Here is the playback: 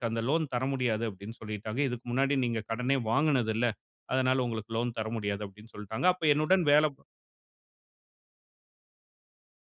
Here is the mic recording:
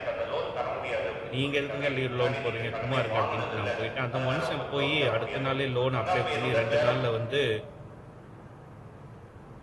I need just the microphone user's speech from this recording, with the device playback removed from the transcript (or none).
"நீங்க எதுக்குங்க லீ லோன் போடுறீங்க? சும்மா இருங்க" அப்டின்ட்டு நான் போயிட்டேன். அந்த மனுஷன் போயி அடுத்த நாளே லோன் வந்துருச்சு அப்ளை பண்ணி 2 நாள்ல வந்து,